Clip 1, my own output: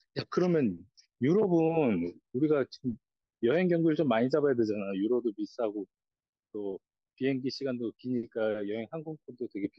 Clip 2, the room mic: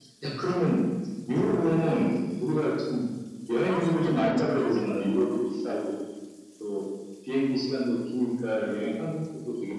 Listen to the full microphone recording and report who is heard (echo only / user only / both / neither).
both